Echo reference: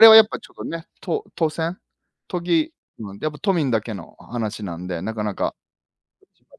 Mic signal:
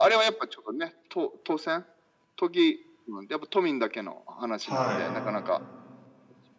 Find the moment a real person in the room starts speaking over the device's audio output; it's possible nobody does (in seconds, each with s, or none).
4.6 s